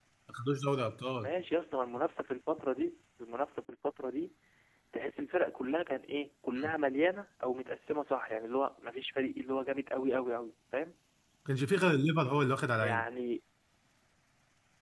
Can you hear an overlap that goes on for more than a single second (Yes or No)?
No